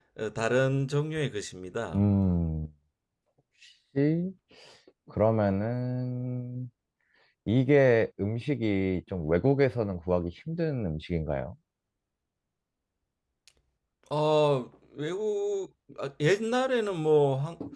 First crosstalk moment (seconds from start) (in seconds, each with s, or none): none